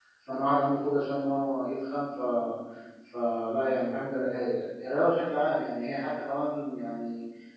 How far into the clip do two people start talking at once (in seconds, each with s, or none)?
none